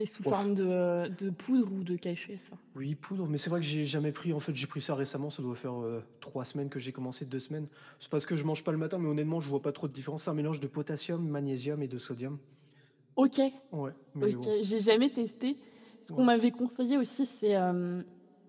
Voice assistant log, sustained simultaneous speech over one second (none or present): none